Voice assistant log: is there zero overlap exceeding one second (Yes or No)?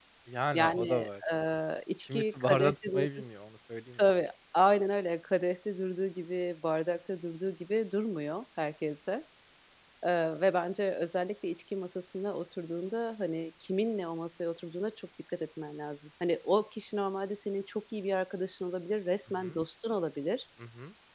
No